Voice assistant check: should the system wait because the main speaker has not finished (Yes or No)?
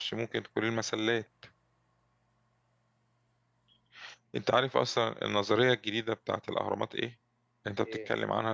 Yes